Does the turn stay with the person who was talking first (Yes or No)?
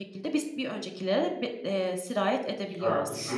No